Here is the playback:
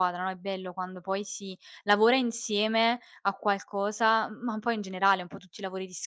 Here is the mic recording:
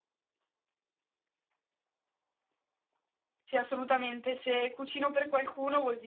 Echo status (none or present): none